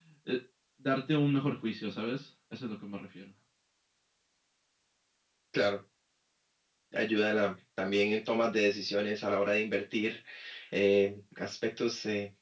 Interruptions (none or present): none